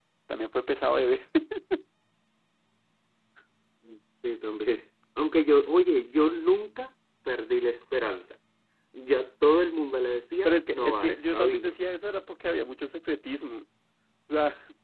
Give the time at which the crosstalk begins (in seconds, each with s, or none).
10.4 s